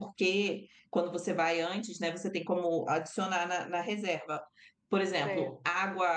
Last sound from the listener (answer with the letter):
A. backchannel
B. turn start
A